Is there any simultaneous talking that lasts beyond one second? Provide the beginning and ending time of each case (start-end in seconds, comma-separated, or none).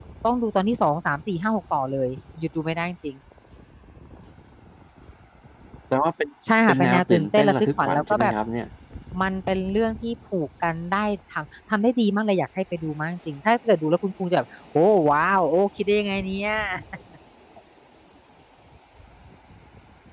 6.7-8.3